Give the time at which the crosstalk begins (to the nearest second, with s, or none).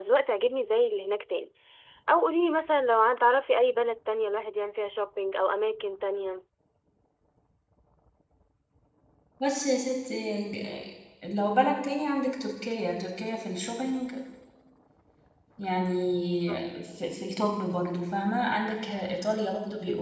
none